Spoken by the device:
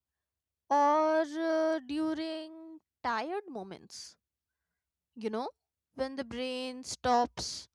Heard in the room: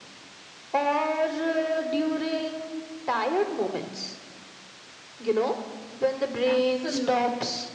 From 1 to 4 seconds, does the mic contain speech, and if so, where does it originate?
echo only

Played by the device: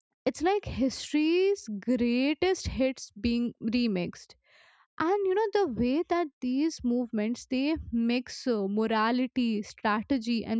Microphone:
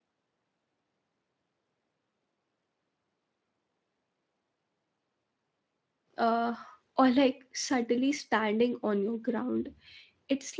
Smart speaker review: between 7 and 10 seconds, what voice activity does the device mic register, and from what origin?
user only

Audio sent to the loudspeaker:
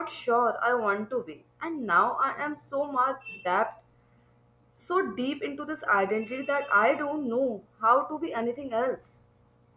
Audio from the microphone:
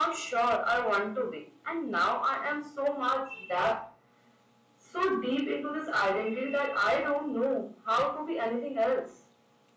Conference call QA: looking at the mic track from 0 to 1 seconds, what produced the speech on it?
echo only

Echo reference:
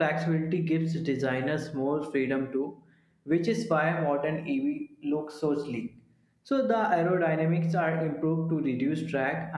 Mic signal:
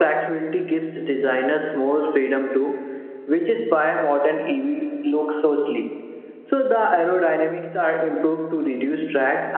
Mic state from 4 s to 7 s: echo only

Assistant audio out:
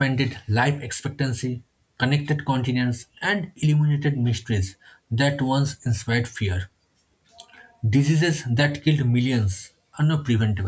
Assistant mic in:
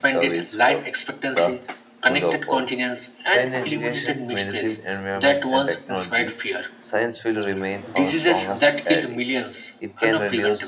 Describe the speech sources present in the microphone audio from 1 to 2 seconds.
both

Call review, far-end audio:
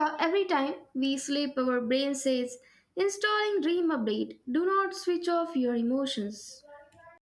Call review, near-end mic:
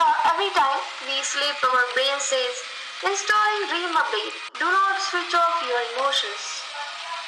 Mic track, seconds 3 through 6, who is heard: echo only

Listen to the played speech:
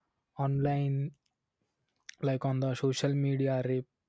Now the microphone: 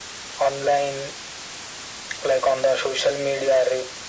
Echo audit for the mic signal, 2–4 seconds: echo only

